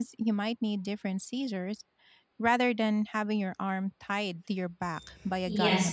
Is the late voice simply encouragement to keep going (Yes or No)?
No